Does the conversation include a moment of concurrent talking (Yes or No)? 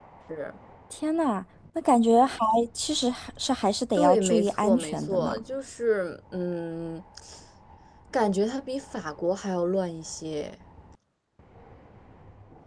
Yes